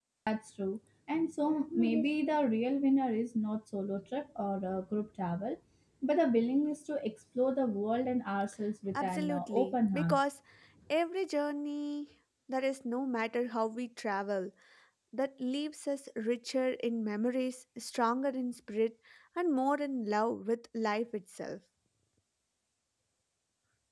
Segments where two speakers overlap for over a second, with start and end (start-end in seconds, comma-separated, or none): 8.9-10.2